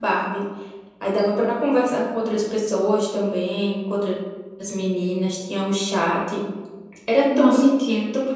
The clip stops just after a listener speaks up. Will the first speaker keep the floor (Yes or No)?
Yes